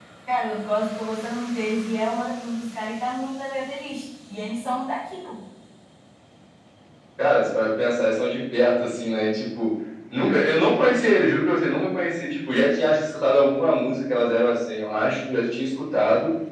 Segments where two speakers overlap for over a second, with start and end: none

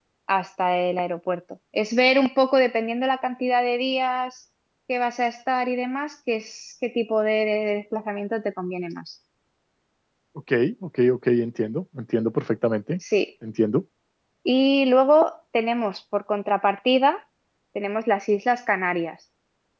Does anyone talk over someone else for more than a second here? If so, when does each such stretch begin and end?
none

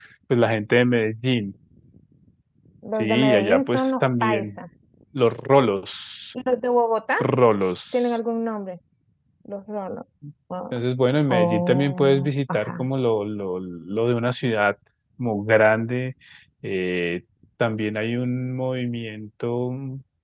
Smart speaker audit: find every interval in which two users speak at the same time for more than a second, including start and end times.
3.0-4.5, 11.3-12.9

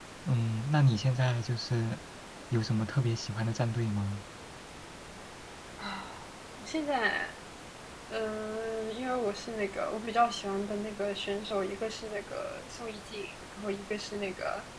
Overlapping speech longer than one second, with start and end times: none

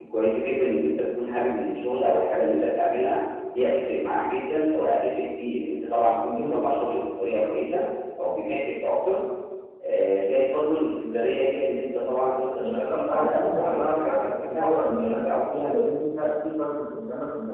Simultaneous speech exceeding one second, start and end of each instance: 12.6-15.6

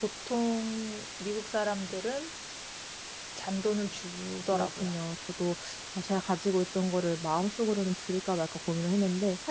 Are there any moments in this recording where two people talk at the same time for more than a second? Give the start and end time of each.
none

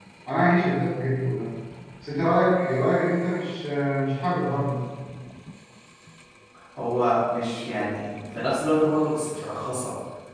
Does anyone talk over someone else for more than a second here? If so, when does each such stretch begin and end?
none

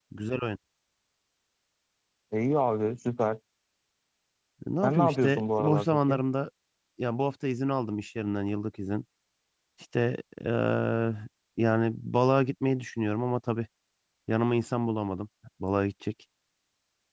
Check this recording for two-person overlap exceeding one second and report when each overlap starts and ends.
4.8-6.2

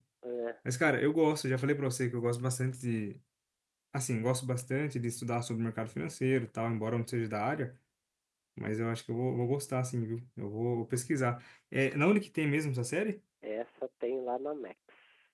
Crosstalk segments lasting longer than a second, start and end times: none

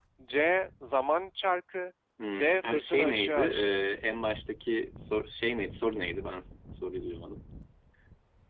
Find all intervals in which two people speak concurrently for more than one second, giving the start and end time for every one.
2.4-3.8

